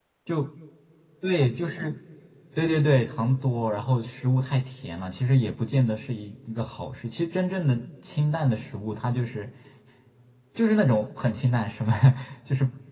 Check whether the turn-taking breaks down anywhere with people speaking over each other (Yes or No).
No